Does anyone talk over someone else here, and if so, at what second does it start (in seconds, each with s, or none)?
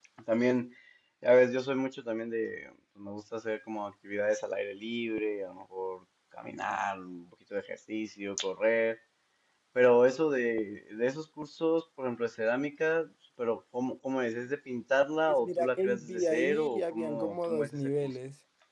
15.4 s